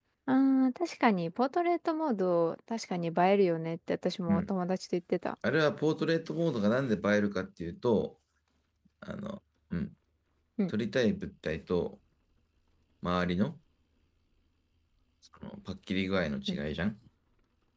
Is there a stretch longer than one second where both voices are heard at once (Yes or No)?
No